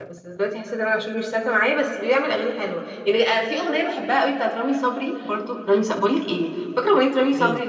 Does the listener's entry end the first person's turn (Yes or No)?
No